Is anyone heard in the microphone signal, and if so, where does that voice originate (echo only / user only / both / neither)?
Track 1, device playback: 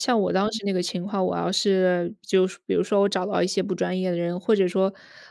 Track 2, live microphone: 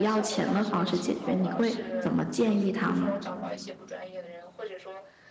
both